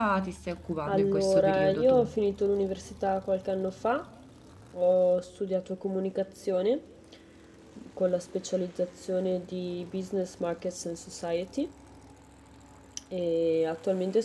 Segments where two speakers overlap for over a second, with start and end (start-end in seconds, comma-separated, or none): 0.9-2.1